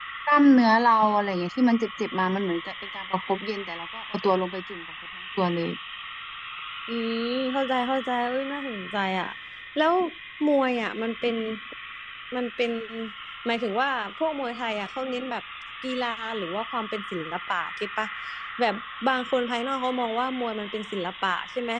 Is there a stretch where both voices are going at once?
No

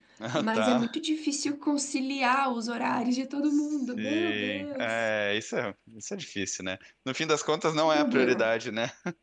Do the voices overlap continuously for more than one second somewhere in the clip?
Yes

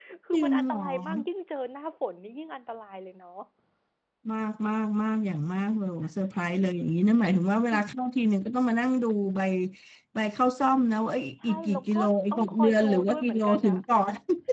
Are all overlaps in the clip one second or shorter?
No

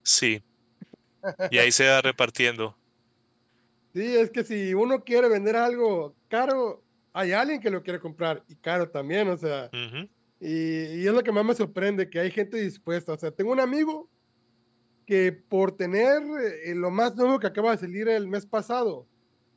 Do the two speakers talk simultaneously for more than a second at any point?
No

